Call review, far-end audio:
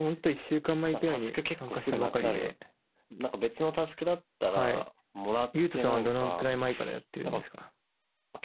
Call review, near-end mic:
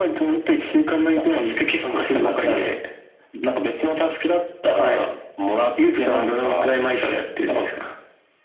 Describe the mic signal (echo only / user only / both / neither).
echo only